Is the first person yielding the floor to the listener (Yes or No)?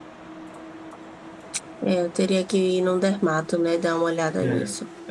Yes